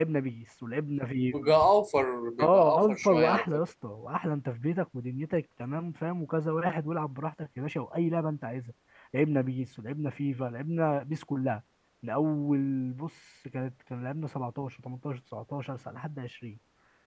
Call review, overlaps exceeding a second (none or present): present